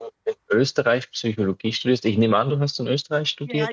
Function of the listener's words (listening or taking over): taking over